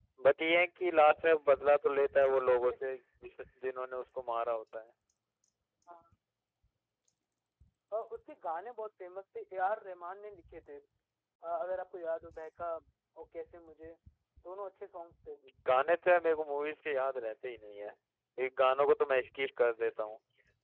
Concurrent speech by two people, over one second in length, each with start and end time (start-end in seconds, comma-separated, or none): none